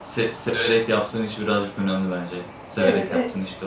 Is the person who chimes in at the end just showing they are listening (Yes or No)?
No